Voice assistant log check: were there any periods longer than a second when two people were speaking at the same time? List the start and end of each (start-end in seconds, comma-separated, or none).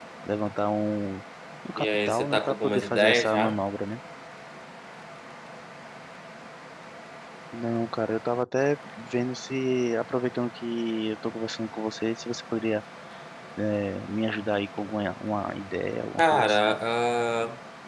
1.8-3.6